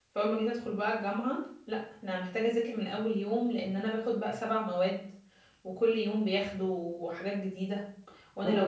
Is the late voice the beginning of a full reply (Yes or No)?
Yes